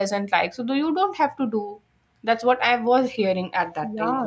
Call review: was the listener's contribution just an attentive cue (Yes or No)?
No